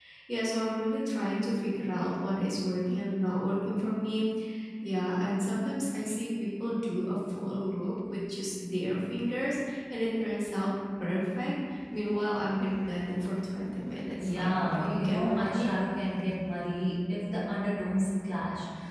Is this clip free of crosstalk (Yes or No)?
No